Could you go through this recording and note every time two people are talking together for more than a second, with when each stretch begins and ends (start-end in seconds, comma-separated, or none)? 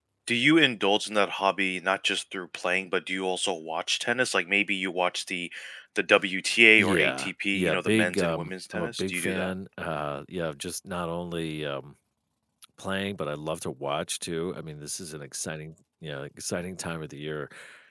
6.8-9.5